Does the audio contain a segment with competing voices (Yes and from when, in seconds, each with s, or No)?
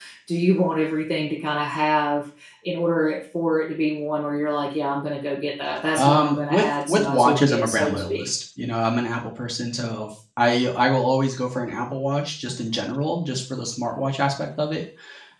Yes, from 5.9 s